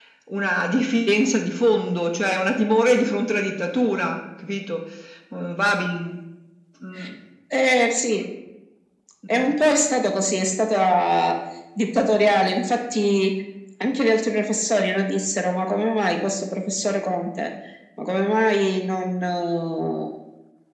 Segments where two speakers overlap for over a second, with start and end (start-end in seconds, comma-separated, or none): none